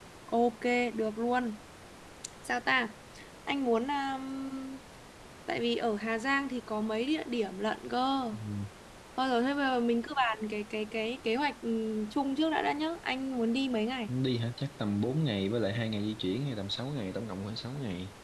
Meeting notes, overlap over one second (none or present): none